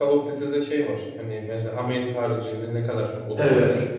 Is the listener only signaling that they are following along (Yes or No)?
No